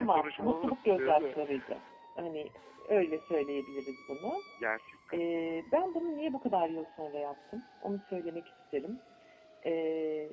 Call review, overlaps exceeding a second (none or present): present